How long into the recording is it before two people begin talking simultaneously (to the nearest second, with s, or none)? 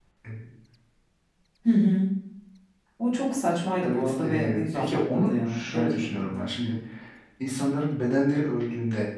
4 s